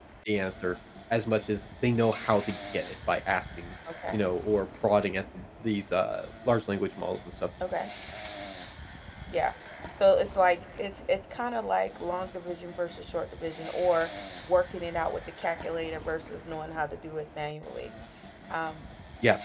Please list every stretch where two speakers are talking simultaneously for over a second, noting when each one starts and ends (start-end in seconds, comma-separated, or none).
none